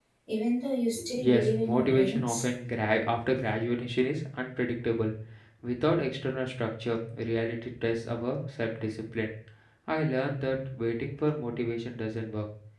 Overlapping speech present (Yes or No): Yes